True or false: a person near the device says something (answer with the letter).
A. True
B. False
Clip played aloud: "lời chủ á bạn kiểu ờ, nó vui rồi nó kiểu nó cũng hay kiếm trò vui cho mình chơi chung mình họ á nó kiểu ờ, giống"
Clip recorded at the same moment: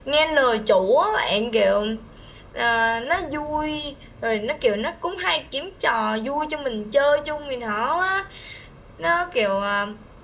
B